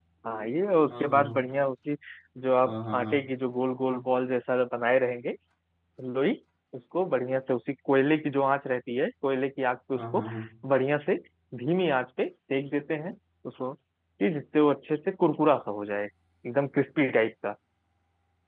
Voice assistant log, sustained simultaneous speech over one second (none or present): none